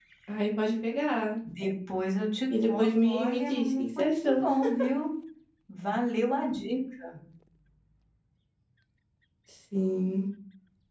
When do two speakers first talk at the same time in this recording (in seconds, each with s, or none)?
2.5 s